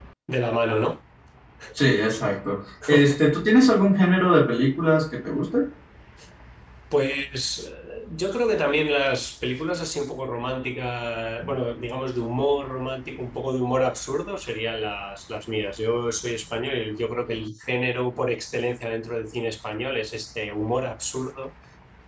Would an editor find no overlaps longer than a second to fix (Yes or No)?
Yes